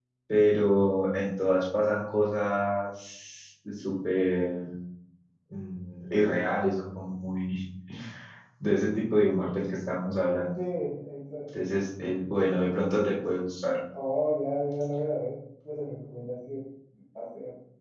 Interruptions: none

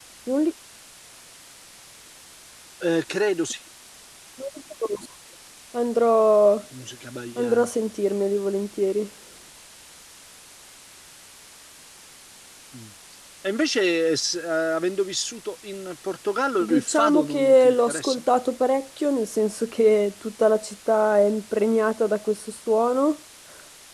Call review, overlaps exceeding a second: present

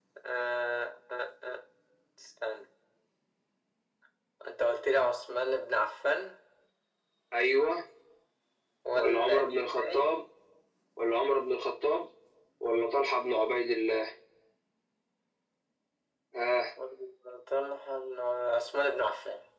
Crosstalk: present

